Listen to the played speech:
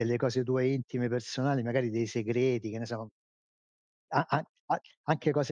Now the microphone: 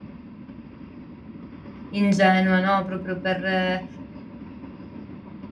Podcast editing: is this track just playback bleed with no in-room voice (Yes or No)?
No